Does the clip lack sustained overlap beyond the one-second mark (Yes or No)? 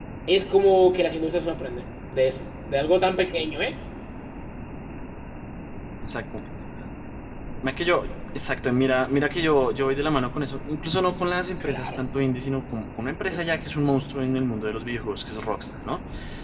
Yes